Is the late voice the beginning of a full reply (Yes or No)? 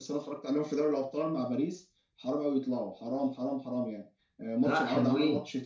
No